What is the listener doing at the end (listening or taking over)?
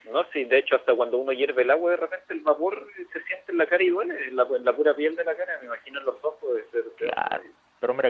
taking over